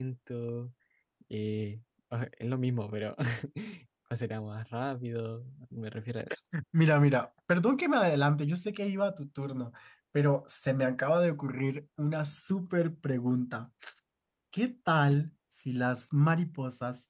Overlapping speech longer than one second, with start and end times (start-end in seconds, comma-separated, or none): none